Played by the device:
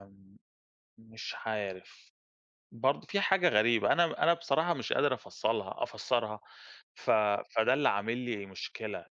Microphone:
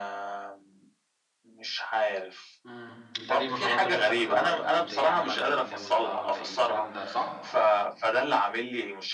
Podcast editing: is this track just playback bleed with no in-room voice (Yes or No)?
No